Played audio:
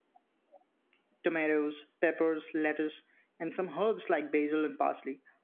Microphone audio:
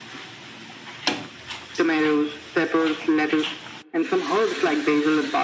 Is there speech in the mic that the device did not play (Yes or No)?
No